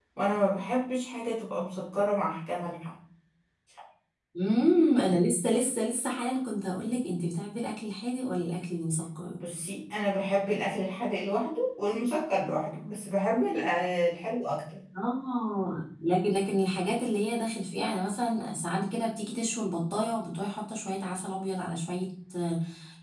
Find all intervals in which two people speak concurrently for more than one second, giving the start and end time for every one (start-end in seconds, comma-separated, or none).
none